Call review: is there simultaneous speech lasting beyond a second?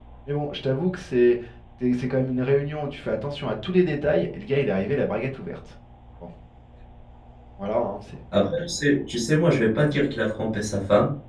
No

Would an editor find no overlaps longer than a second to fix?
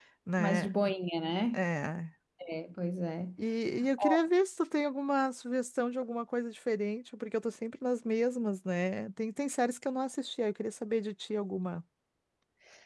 Yes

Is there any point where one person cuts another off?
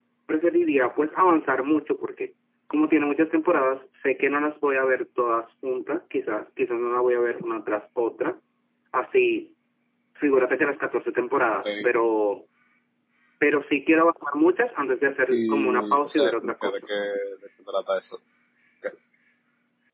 Yes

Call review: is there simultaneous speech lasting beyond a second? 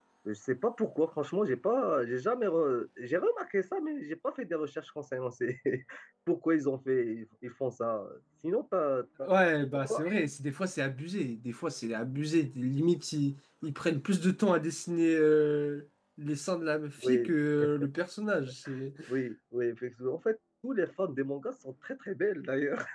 No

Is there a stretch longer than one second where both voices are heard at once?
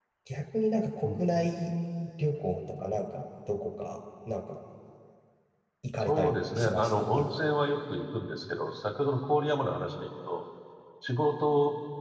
Yes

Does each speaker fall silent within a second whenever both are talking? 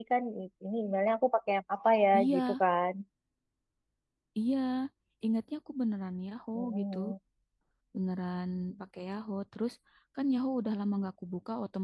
Yes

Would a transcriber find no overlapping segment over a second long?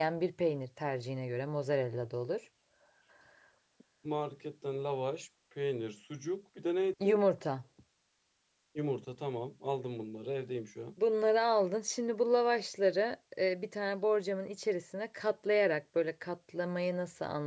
Yes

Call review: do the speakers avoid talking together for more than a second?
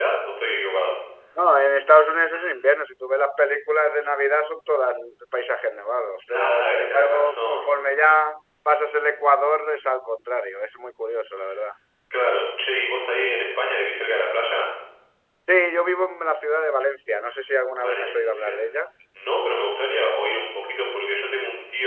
No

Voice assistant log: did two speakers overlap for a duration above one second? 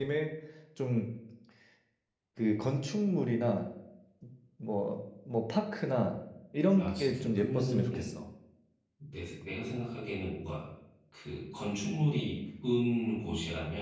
Yes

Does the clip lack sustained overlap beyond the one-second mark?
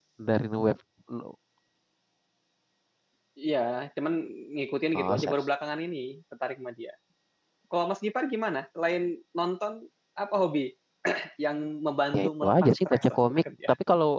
No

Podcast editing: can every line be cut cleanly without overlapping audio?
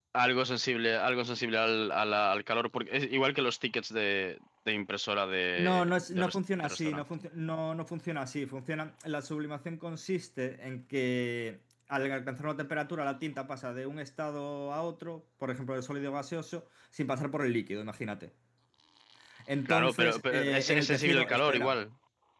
No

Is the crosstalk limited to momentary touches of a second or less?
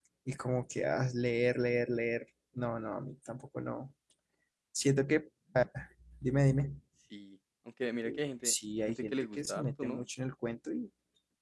No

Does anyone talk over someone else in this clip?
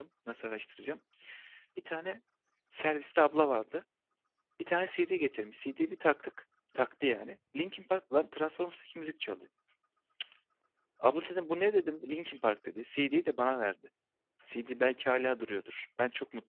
No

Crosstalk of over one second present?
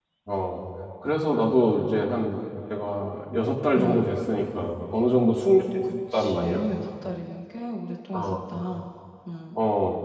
No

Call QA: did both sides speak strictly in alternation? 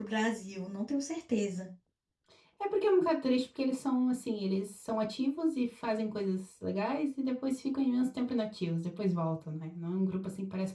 Yes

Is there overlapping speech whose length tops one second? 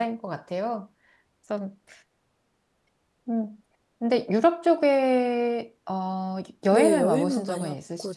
Yes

